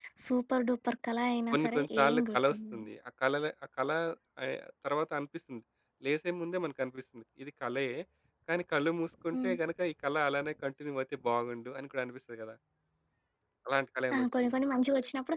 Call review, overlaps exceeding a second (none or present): present